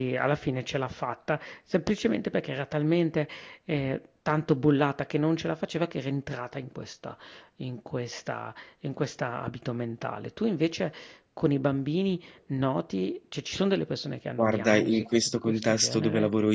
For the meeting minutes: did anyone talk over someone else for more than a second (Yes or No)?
Yes